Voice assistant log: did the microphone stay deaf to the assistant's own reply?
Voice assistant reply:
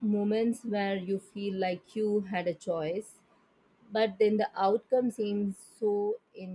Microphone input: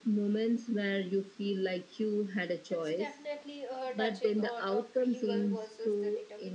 No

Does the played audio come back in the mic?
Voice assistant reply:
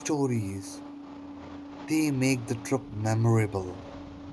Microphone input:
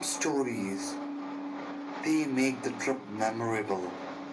Yes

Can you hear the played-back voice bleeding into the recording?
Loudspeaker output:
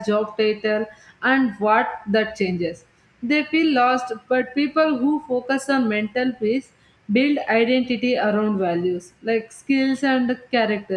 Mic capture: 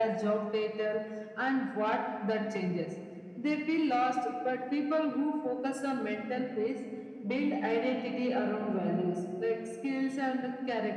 Yes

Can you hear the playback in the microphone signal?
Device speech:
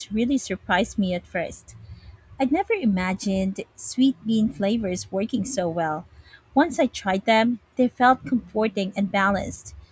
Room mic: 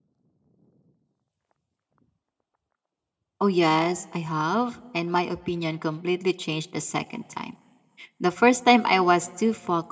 No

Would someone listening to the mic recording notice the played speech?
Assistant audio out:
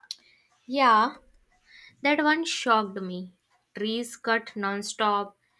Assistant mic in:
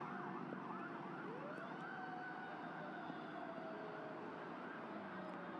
No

